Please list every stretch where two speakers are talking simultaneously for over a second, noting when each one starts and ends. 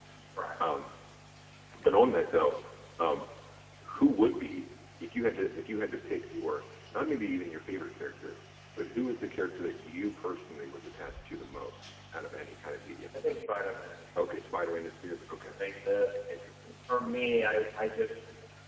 none

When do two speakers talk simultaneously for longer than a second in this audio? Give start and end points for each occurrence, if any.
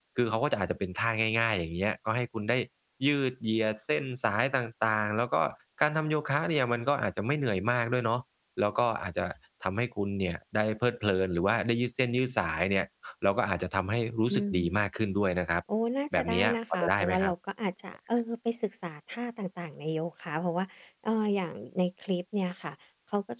16.1-17.3

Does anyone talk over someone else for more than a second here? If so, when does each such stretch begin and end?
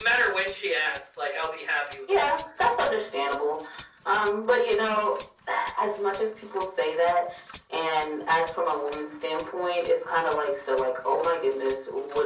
none

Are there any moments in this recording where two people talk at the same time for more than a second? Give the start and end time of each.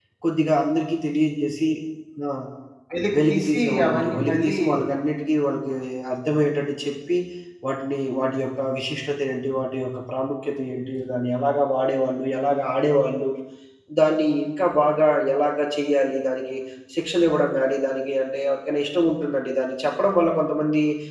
3.2-4.6

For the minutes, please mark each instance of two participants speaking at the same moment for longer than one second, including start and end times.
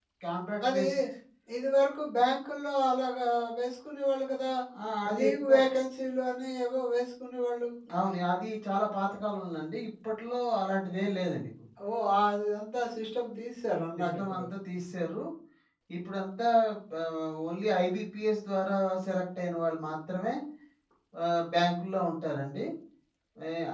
none

